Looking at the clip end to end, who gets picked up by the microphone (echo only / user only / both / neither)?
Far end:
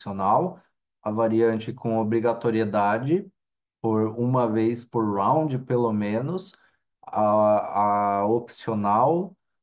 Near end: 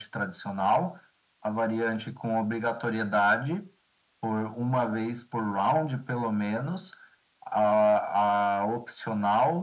echo only